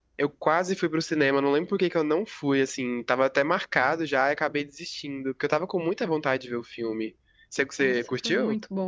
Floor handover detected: Yes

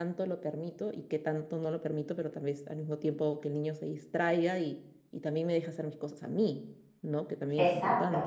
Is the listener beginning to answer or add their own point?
Yes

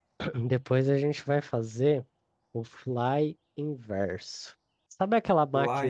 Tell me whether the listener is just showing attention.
Yes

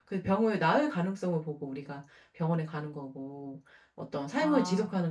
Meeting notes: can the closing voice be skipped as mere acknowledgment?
Yes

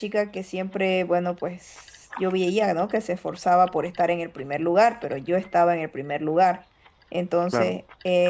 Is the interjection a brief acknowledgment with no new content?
Yes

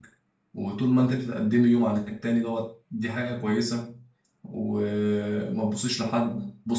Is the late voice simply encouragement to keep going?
Yes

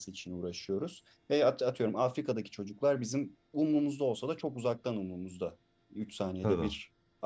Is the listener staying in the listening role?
Yes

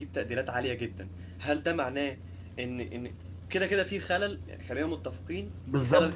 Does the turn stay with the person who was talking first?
No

